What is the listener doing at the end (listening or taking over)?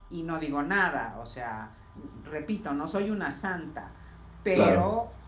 listening